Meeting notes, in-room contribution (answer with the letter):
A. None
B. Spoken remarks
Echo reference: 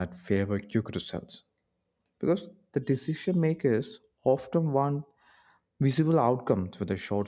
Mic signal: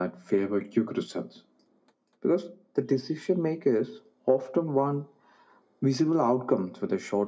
A